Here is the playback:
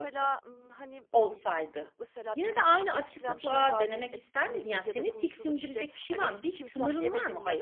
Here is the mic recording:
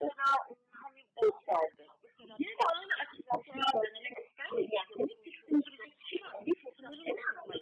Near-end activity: none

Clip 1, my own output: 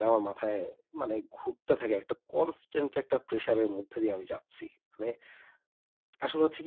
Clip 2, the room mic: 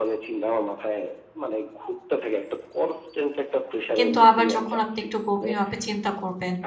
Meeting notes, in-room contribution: present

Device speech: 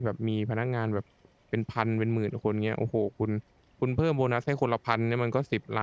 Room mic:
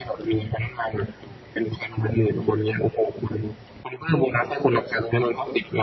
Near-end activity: none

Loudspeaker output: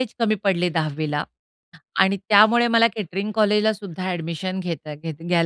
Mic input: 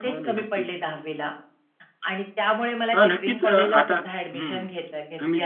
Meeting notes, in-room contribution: present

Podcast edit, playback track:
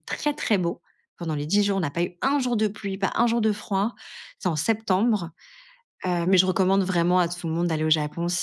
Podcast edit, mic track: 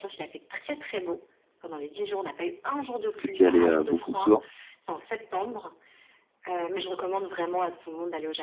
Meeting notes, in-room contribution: present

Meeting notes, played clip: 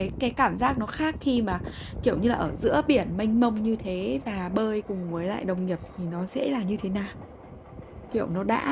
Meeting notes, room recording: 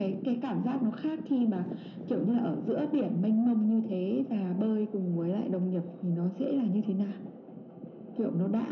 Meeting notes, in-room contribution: none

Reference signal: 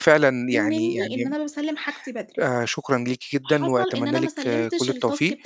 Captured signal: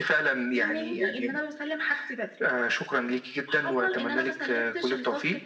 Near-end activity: none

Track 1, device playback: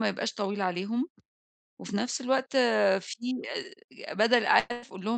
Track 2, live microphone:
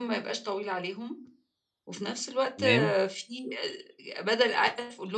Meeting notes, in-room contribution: present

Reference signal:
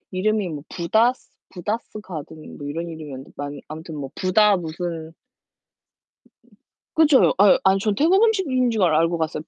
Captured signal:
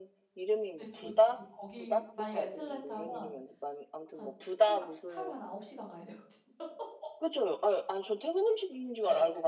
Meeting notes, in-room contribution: present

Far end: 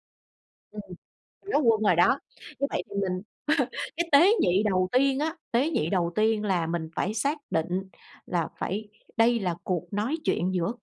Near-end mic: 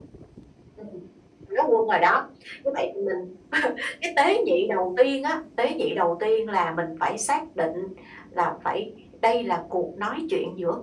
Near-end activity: none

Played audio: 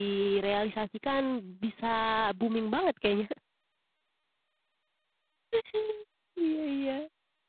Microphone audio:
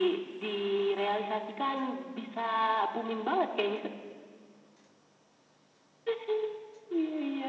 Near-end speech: none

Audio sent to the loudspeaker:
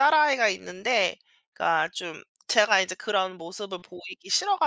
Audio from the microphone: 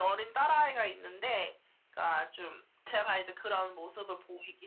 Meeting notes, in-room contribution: none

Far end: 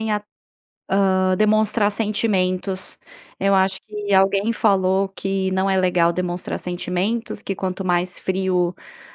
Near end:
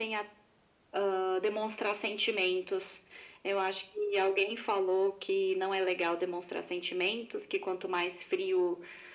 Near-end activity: none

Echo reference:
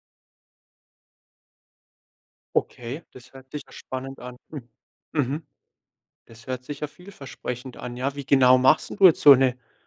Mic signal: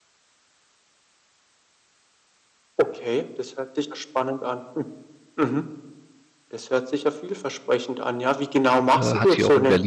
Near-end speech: present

